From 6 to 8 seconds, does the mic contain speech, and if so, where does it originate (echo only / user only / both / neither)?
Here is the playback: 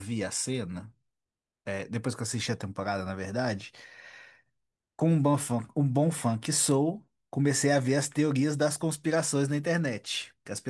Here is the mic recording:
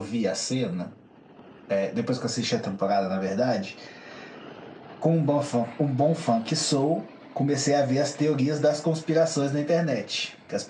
echo only